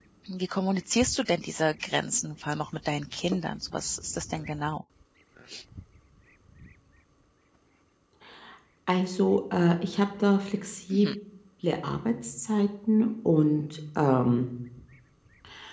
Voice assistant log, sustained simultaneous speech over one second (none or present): none